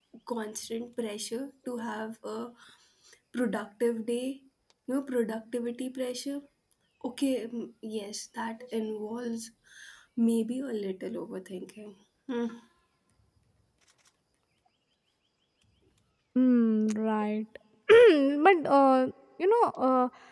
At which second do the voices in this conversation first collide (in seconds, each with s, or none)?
none